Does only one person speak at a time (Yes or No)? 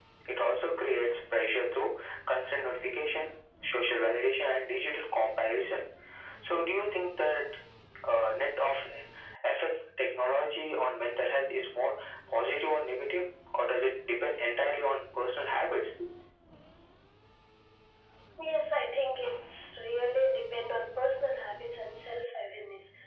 Yes